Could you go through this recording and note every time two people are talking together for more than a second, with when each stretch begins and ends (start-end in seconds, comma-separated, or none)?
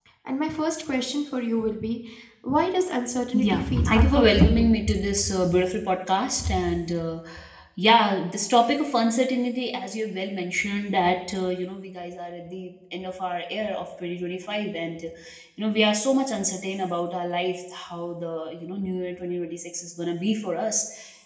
3.4-4.7